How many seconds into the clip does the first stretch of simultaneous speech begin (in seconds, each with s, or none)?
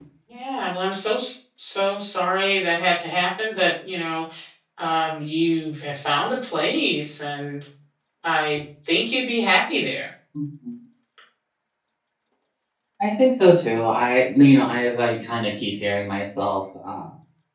none